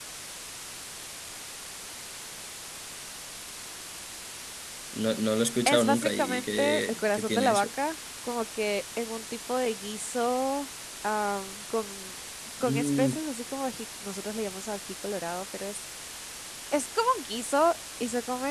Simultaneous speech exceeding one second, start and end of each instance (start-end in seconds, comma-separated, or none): 5.7-7.7